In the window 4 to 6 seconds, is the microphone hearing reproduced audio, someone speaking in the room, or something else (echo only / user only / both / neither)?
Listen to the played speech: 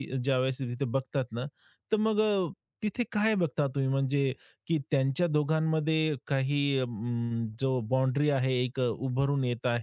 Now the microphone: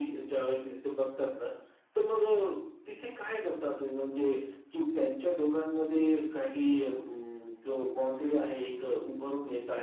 echo only